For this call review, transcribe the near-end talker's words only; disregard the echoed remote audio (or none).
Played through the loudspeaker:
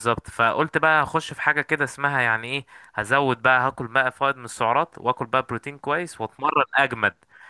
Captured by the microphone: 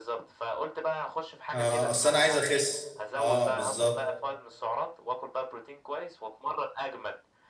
اه اصل انا عايز اخس اه بالظبط